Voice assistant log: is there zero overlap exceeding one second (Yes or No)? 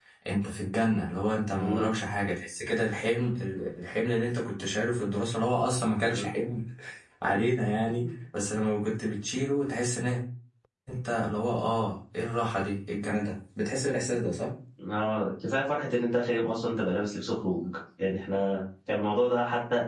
Yes